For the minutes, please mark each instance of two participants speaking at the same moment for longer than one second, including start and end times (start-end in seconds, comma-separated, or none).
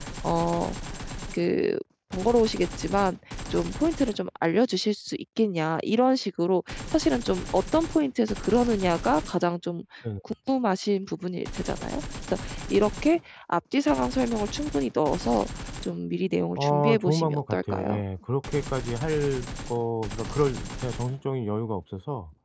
16.6-18.0